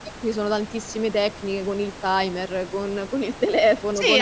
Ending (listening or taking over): taking over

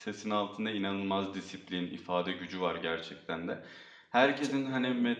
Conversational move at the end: listening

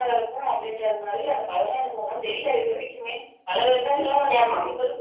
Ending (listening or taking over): listening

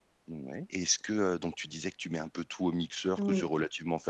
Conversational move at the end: listening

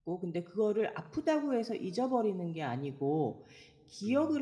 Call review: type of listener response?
listening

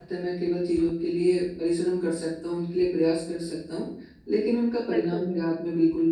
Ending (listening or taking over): listening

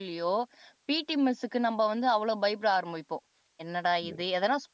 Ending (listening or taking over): listening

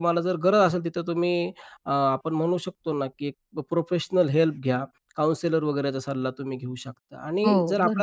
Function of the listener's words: listening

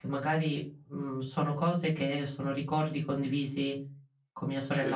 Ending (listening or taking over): listening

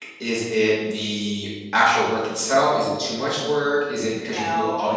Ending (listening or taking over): listening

